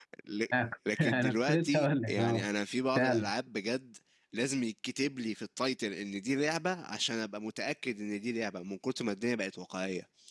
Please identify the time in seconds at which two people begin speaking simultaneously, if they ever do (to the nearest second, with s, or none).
1 s